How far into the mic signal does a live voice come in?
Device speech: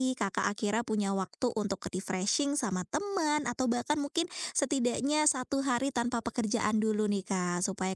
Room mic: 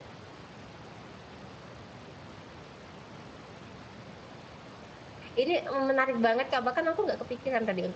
5 s

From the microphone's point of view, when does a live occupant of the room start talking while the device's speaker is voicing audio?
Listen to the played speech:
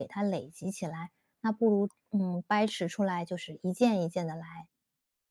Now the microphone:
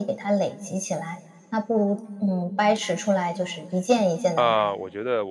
4 s

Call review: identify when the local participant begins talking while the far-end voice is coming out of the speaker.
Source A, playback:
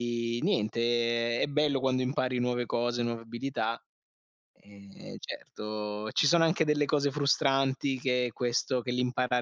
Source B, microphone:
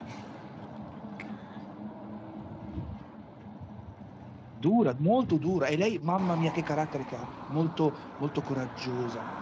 5 s

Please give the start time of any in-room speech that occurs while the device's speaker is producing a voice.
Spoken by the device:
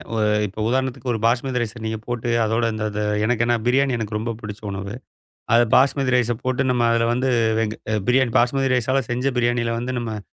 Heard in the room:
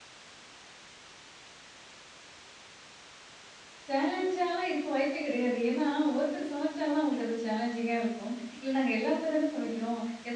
4 s

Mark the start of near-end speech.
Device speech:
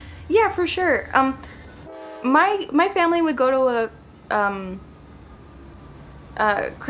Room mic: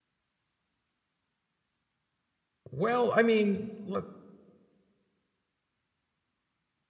3 s

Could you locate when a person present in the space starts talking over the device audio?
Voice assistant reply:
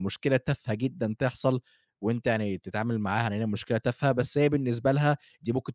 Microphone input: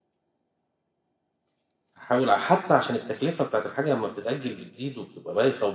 2 s

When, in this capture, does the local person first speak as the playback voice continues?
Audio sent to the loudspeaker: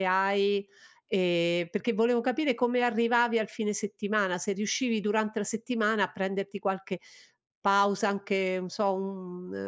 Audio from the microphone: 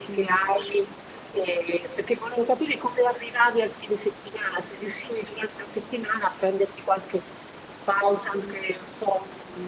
none

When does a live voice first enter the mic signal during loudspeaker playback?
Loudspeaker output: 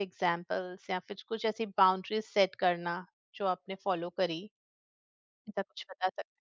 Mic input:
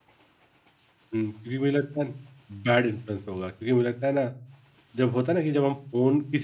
1 s

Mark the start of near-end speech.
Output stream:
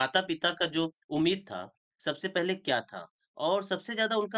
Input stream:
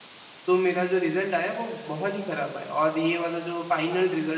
0 s

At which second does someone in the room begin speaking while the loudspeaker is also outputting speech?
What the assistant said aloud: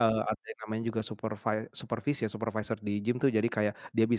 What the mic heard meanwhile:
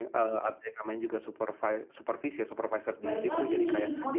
3 s

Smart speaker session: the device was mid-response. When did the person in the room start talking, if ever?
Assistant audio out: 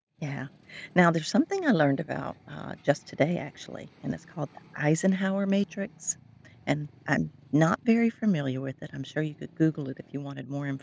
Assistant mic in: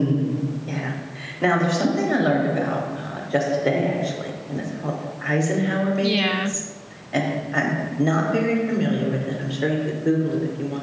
6 s

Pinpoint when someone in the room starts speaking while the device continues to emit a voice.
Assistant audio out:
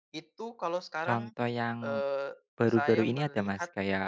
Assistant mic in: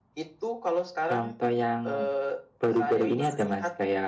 none

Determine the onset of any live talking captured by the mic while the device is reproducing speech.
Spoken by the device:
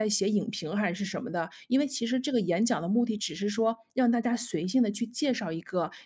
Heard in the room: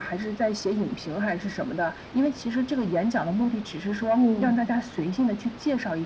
4 s

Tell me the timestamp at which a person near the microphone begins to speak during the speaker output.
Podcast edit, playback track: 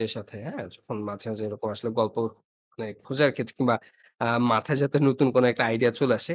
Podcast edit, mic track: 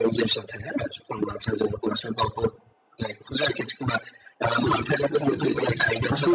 5 s

